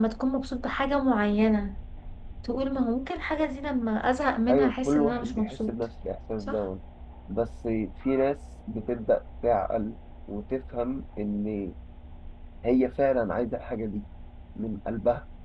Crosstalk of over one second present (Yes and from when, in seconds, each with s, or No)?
Yes, from 4.5 s